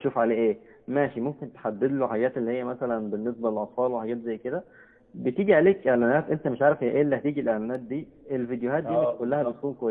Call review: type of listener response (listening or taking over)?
listening